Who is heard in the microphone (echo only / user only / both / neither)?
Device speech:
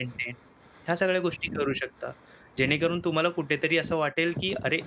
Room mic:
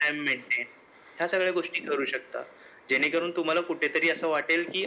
echo only